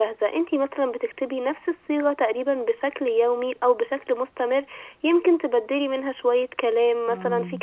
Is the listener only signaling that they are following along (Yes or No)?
Yes